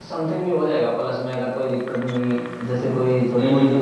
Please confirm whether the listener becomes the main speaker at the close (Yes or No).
No